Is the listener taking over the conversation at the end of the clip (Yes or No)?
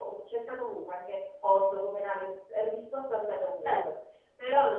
No